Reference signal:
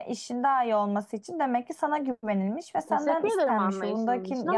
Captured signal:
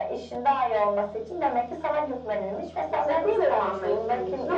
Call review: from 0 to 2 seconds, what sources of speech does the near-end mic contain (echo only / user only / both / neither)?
echo only